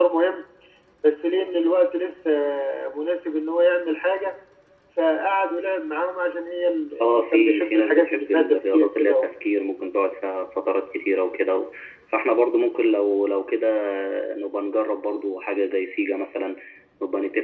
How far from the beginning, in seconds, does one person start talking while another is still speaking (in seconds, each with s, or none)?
7.0 s